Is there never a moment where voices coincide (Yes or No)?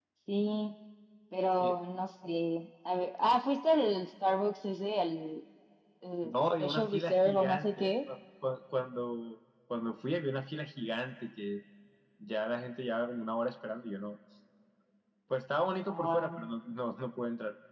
No